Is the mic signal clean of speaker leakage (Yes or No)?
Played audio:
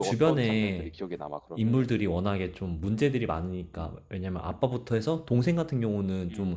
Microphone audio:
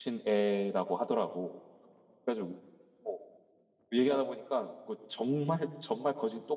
Yes